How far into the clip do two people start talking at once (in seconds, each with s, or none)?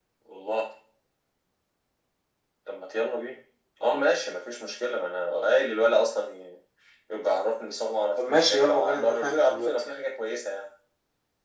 8.2 s